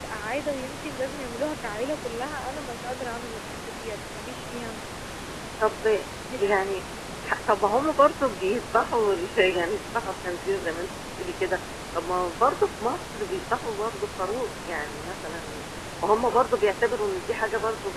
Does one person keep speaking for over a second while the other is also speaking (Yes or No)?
No